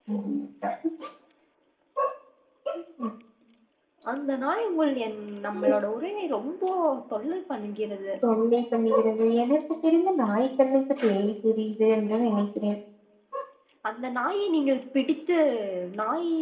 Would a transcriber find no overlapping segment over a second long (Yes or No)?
Yes